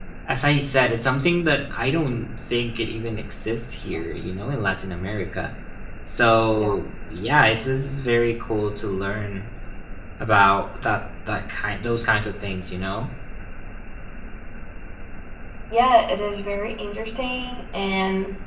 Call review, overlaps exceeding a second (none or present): none